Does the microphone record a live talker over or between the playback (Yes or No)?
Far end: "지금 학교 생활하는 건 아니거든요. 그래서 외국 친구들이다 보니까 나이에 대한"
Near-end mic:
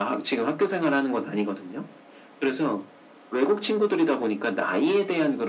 No